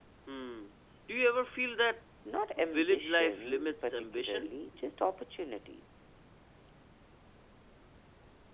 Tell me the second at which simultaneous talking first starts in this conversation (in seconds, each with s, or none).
2.6 s